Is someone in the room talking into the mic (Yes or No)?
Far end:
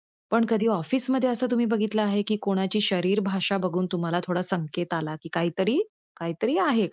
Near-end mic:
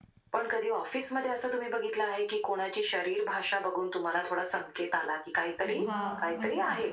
Yes